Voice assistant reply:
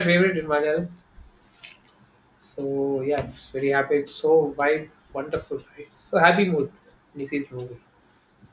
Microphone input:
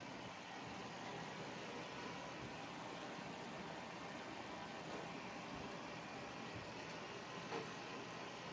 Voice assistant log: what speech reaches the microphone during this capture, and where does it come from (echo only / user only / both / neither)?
neither